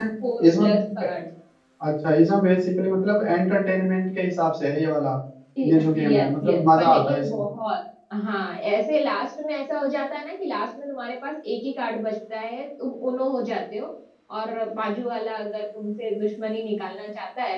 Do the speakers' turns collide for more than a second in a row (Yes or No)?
Yes